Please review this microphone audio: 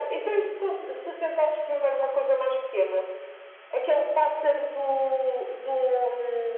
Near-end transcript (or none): none